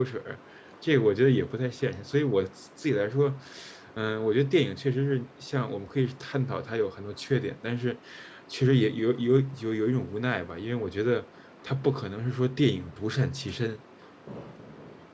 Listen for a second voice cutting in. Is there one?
No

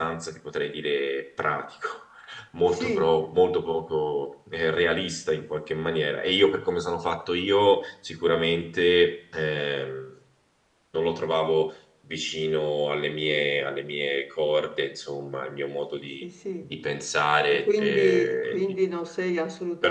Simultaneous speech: Yes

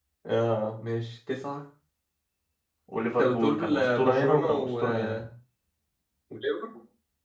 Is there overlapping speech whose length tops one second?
Yes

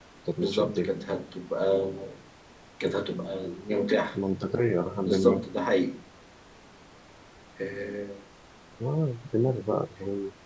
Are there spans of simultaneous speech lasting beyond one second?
No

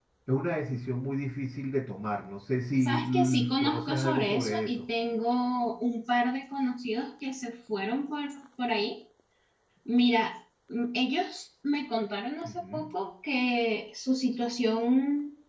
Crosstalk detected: Yes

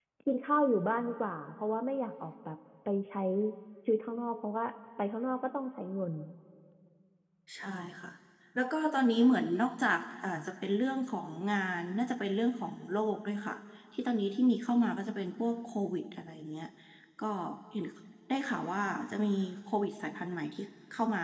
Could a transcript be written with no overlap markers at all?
Yes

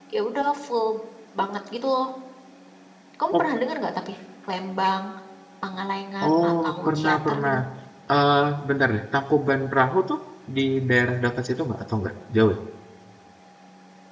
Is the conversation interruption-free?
No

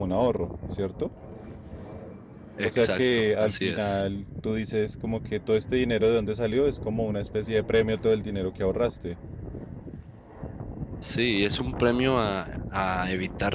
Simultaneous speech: Yes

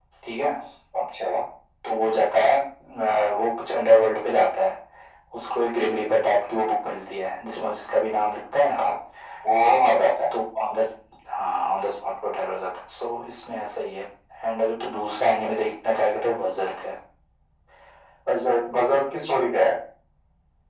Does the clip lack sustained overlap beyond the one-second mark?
Yes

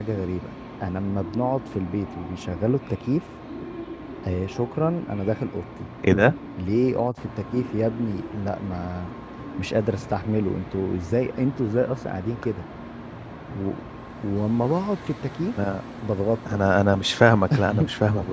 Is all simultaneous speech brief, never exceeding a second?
Yes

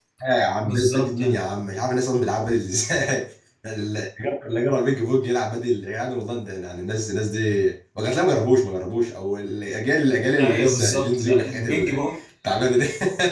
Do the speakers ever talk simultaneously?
Yes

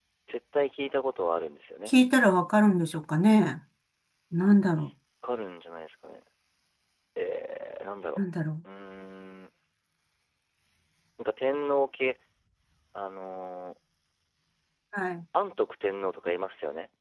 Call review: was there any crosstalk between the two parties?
No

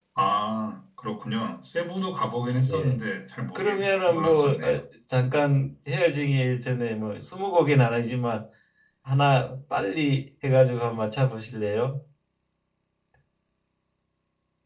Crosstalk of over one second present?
Yes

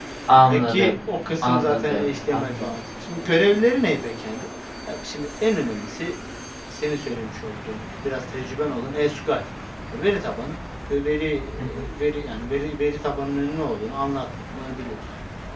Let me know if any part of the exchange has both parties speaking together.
Yes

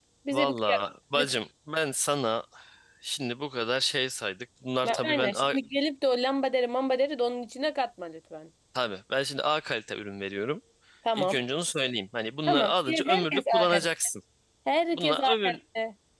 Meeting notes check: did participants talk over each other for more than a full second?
Yes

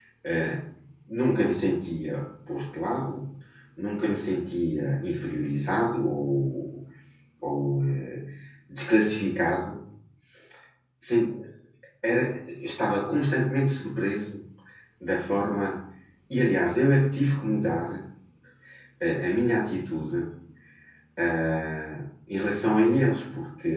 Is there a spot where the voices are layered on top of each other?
No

